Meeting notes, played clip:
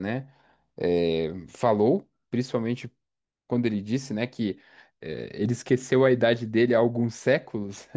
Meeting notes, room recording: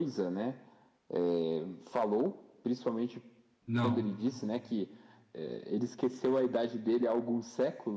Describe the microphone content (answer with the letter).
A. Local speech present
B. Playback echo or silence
A